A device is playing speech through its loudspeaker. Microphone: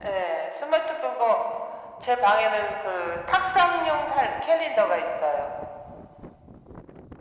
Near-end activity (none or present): none